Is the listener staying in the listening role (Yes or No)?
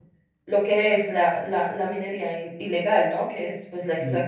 Yes